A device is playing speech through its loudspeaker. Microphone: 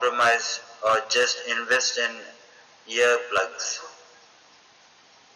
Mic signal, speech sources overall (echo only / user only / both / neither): echo only